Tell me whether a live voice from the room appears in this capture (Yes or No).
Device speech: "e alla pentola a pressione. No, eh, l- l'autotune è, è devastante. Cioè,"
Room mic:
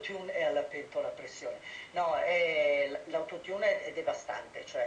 No